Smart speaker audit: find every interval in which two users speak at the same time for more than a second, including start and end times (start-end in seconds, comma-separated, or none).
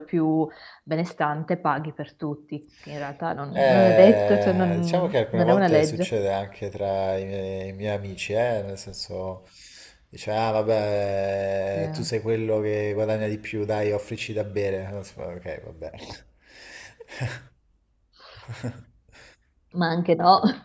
3.5-6.1